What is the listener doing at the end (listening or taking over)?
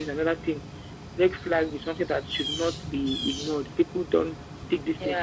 taking over